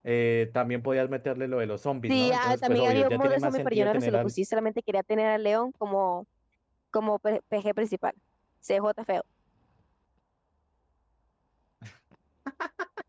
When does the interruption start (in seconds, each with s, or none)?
2.1 s